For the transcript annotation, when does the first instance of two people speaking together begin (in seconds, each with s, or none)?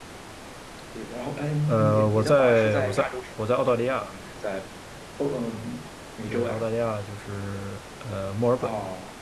1.7 s